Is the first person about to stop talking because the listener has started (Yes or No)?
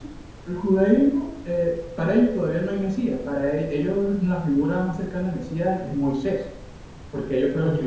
No